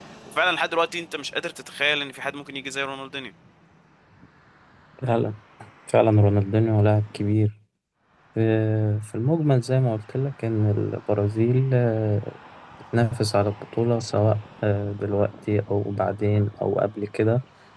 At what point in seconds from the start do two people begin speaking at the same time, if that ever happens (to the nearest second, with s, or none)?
none